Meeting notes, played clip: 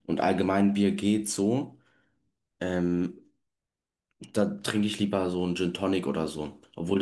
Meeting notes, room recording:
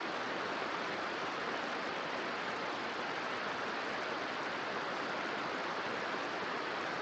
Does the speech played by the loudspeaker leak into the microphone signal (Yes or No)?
No